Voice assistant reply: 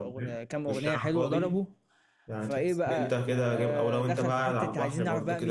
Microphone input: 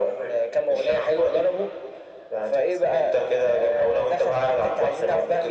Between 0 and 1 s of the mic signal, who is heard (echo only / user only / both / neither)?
echo only